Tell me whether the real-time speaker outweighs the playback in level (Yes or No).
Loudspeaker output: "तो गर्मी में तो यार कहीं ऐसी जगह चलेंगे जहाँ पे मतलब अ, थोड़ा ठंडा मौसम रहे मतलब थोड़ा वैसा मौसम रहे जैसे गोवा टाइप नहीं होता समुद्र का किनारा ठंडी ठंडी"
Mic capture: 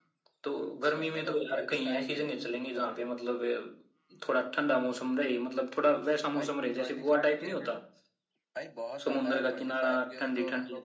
No